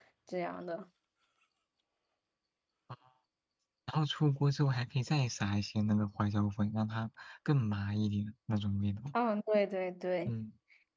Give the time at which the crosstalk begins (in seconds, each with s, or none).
none